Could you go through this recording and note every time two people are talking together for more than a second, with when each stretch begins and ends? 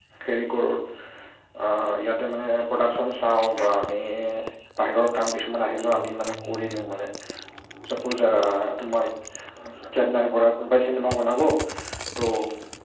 none

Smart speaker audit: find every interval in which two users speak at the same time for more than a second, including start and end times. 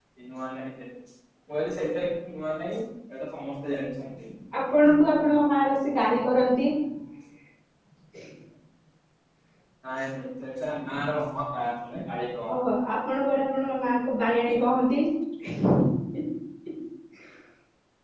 none

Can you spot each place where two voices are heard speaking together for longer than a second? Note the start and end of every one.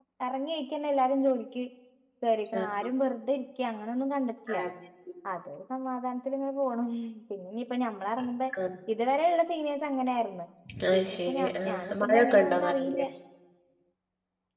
11.0-13.0

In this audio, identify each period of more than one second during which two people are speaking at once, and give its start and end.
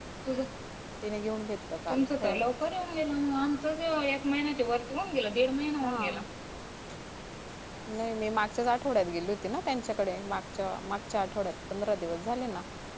none

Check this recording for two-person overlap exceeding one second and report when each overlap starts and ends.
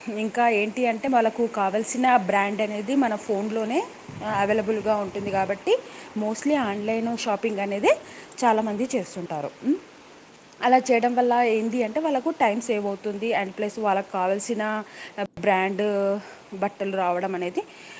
none

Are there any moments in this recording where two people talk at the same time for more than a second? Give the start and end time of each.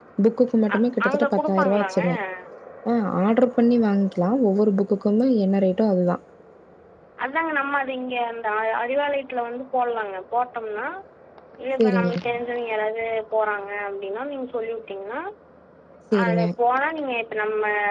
0.7-2.0

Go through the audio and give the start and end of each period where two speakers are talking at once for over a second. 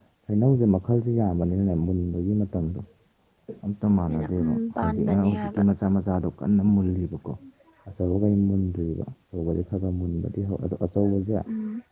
4.1-5.6

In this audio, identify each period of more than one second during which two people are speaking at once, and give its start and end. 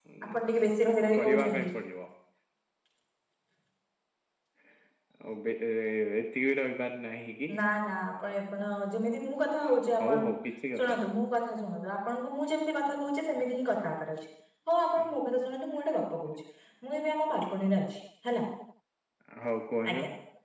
none

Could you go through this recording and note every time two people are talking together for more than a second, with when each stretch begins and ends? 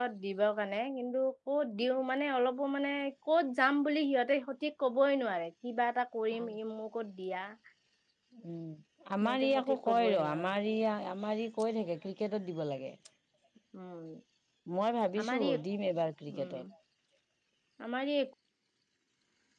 9.2-10.5

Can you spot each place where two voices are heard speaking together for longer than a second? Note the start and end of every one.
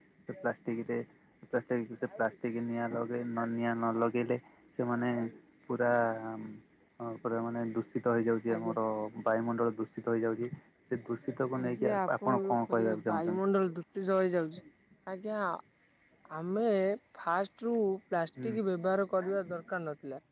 11.6-13.4

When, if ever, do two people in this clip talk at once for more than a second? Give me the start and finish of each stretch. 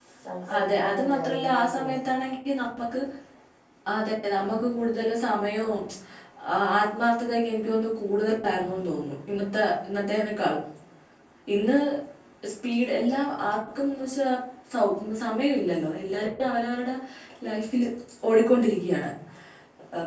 0.6-1.9

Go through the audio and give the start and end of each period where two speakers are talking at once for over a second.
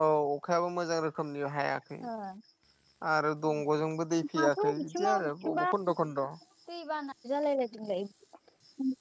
4.4-5.7

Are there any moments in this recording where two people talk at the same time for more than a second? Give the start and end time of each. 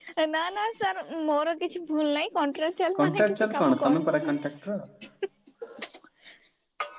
3.0-4.4

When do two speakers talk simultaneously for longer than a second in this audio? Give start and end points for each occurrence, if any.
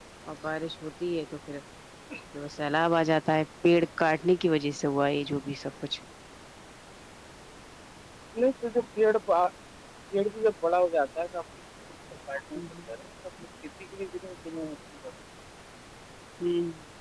none

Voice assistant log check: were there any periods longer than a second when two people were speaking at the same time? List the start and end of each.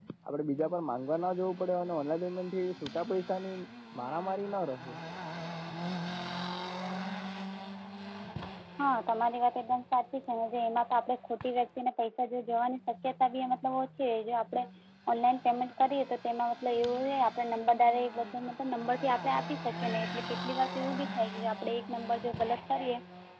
none

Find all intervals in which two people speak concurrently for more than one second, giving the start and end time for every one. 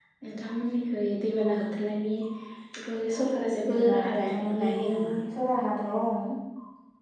3.7-5.2

